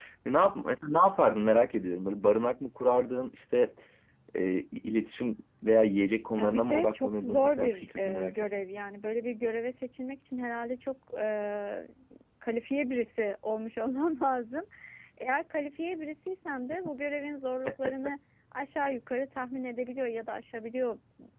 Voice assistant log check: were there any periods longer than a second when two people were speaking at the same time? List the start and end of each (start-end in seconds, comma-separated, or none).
6.4-8.5